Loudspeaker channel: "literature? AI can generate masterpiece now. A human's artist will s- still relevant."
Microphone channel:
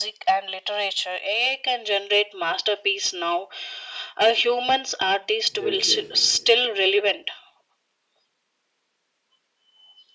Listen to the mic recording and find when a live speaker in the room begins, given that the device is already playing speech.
5.5 s

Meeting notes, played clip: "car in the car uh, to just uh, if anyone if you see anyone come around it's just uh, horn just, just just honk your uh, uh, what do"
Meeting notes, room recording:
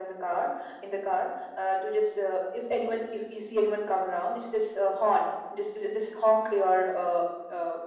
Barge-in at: none

